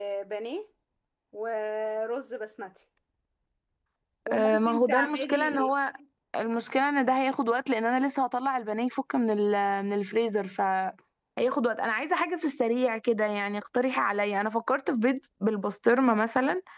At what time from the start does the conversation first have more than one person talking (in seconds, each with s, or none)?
4.3 s